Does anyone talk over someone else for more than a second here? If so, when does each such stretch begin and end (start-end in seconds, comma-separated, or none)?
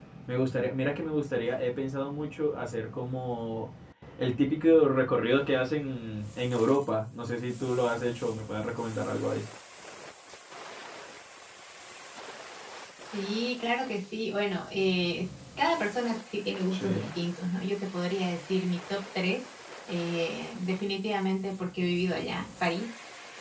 none